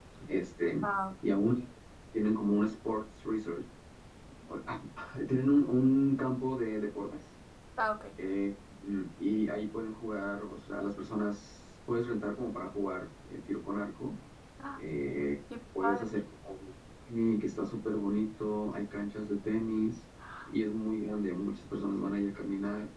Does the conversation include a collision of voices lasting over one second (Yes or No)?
No